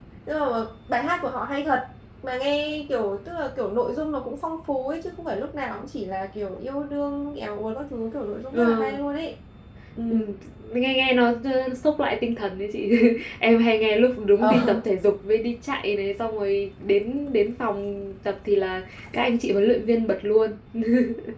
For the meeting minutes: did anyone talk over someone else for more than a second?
No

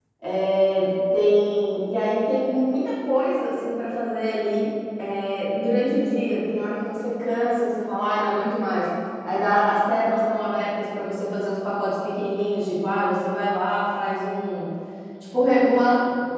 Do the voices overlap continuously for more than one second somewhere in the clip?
No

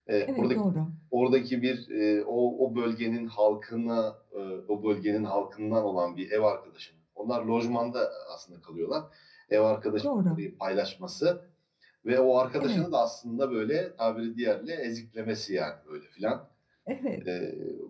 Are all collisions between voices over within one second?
Yes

